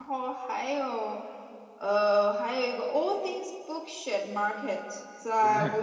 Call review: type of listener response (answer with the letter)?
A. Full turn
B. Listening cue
B